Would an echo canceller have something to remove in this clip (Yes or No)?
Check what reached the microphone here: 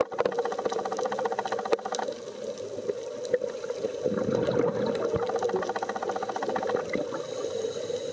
No